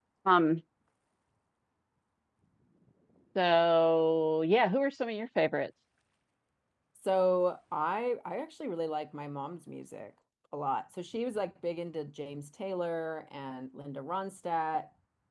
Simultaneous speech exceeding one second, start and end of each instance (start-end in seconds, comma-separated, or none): none